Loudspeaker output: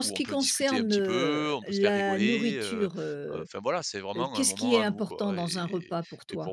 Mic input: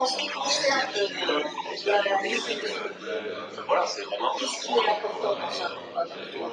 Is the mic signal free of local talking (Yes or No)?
No